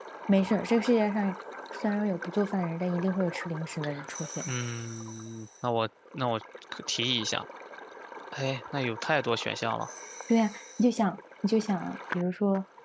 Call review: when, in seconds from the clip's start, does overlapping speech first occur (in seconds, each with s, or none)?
none